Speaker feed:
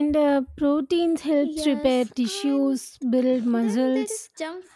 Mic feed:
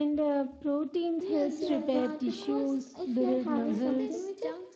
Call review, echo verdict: present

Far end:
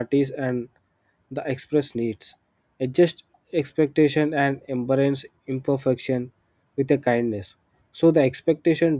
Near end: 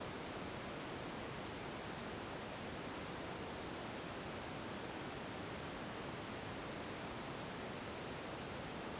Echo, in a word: none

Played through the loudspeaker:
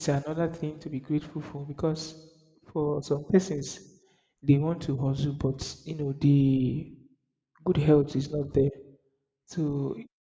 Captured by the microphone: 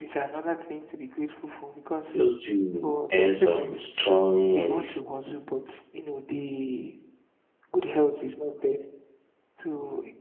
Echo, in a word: present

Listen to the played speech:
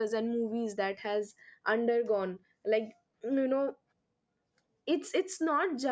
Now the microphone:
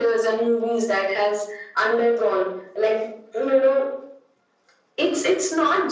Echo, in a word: present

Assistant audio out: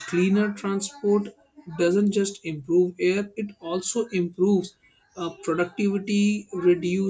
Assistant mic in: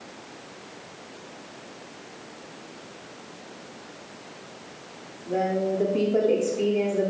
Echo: none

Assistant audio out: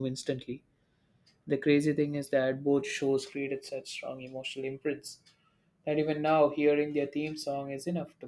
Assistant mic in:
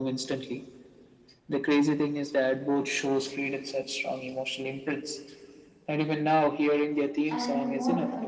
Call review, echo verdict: present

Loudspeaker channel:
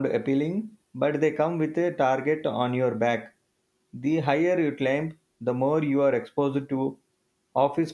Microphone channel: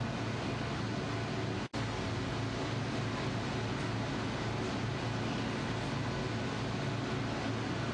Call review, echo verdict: none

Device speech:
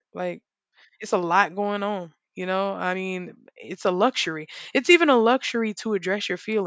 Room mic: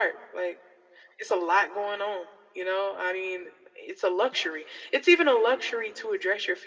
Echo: present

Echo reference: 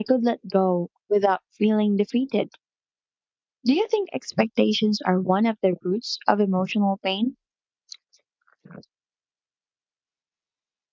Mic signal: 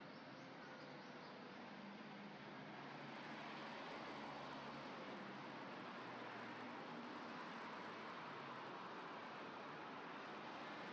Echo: none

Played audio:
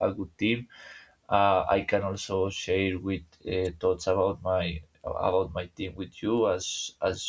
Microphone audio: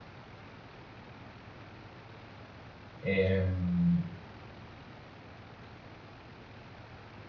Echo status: none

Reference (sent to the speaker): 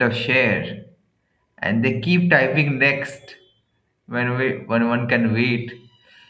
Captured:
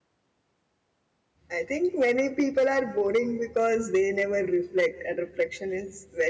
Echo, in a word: none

